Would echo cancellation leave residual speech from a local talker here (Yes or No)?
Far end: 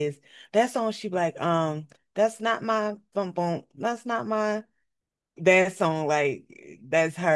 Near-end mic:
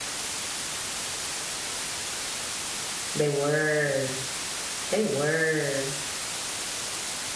Yes